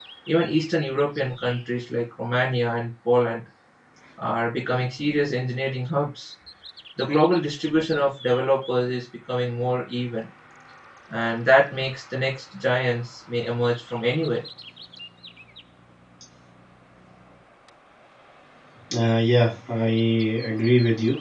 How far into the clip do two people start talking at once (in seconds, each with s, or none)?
none